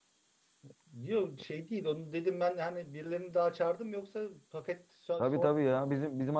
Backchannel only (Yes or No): No